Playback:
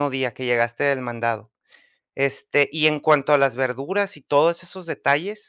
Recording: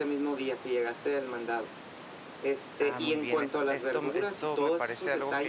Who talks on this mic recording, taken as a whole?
both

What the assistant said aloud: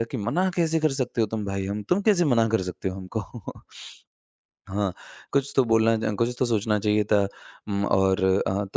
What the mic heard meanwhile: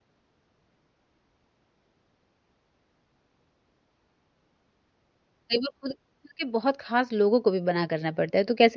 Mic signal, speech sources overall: user only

